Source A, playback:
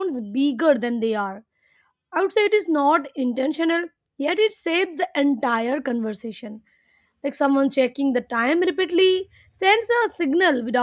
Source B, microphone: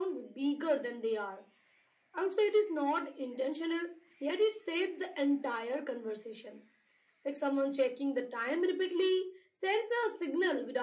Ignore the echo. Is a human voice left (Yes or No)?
No